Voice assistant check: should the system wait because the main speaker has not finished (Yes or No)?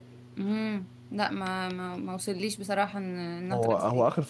No